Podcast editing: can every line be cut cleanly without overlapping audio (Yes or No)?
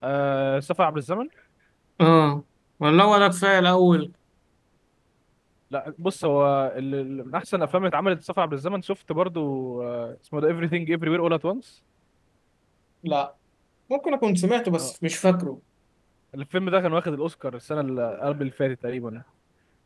Yes